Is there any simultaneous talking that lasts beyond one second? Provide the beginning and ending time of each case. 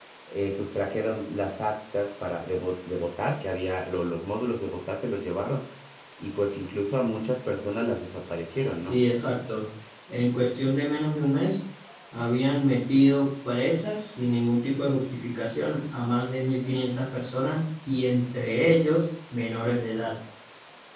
none

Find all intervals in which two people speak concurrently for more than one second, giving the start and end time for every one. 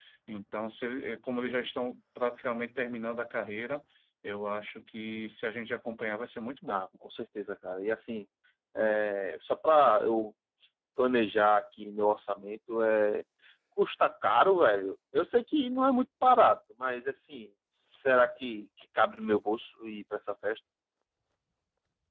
none

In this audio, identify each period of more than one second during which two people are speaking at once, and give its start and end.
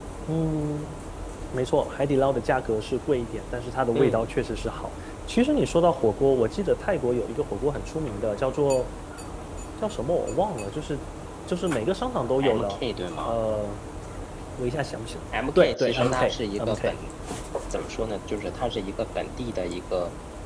15.6-16.9

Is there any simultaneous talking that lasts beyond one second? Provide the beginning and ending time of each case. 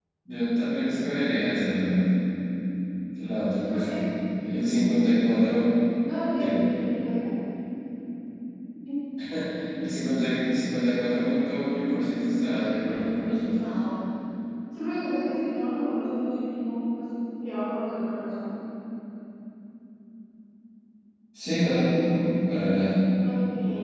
none

